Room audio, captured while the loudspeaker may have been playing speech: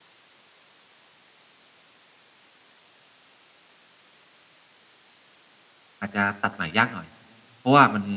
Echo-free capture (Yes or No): Yes